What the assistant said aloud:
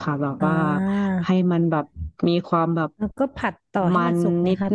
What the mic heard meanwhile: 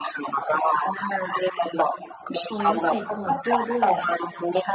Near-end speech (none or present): present